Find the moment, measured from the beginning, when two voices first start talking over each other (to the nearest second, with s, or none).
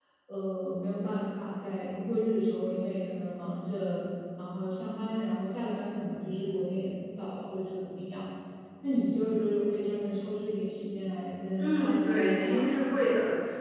12 s